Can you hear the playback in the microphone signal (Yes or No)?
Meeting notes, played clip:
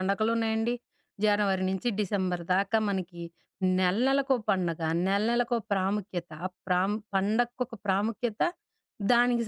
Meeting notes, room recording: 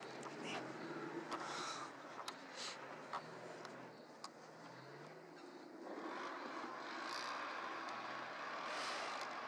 No